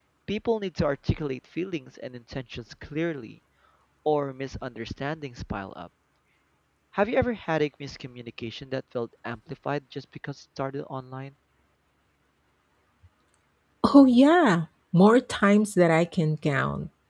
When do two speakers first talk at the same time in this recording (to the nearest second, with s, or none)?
none